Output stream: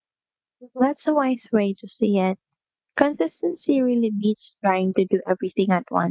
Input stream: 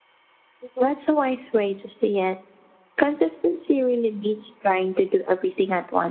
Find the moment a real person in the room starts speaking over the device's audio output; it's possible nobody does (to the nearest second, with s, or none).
none